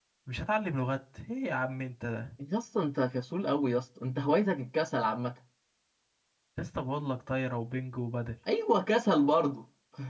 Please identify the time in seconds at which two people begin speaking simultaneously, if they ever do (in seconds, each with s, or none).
none